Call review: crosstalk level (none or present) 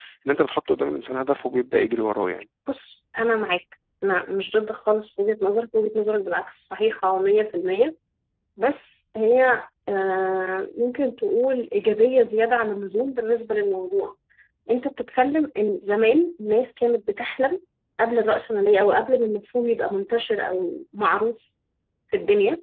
none